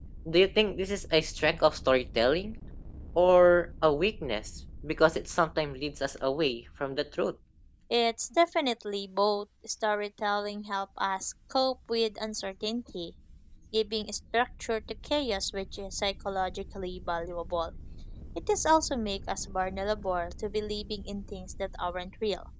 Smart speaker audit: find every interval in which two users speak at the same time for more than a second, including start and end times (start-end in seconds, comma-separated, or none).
none